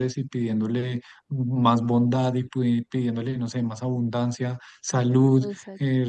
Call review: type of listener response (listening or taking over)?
listening